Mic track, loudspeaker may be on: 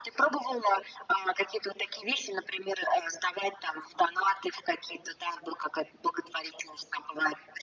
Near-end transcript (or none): none